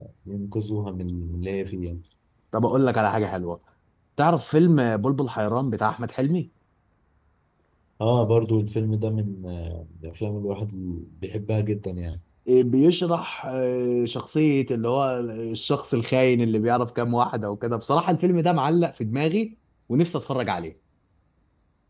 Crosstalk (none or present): none